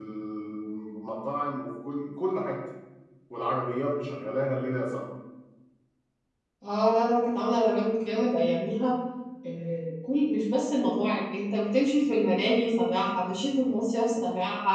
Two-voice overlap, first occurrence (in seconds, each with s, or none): none